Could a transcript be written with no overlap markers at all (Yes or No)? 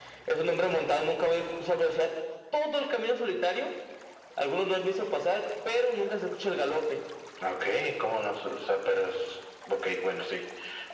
Yes